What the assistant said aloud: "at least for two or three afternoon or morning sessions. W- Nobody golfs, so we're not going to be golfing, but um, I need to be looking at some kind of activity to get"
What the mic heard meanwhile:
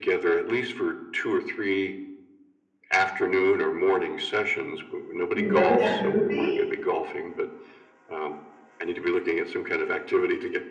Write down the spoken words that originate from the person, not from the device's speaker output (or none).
You remember that movie?